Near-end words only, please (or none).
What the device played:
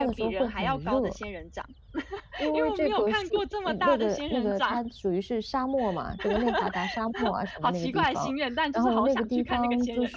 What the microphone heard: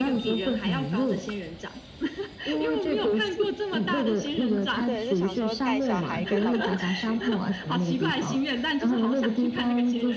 对，就想说带小孩跟老公一起去。